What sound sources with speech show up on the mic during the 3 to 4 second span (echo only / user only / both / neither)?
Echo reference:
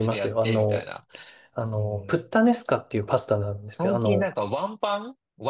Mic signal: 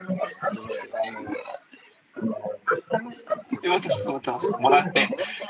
both